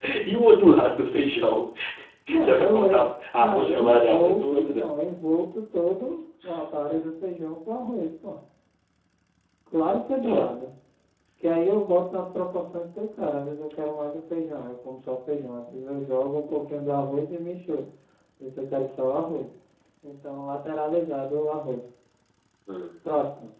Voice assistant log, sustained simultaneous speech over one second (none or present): present